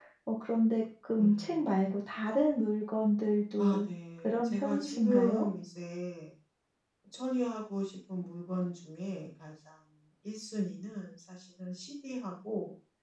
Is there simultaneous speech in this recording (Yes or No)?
Yes